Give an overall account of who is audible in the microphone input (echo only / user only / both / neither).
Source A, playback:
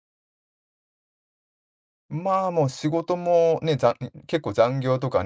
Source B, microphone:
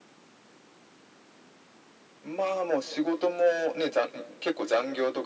echo only